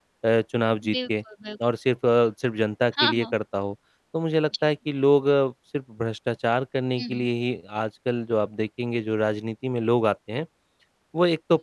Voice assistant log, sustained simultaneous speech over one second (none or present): none